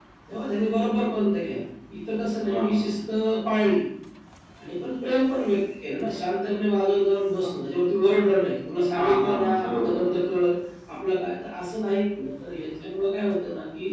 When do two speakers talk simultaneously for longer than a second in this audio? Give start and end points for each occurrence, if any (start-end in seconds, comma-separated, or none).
8.9-10.2